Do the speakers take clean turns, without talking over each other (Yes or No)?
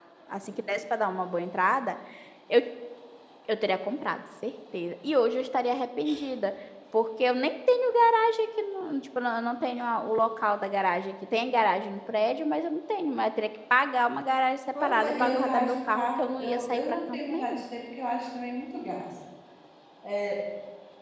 No